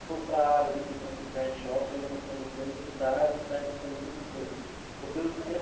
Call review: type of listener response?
listening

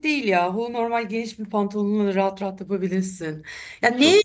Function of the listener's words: listening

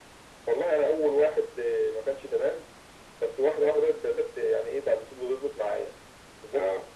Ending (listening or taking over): listening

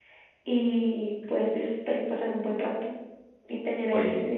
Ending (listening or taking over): listening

